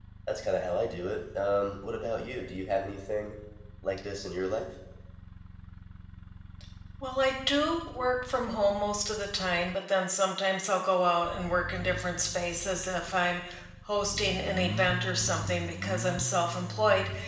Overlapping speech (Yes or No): No